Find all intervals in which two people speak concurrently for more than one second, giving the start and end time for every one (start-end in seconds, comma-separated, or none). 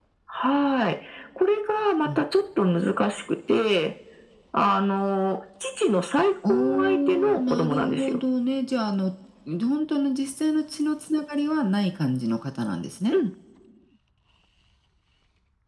6.4-8.2